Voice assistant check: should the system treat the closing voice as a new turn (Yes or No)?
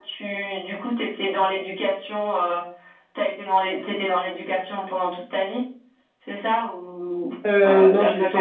Yes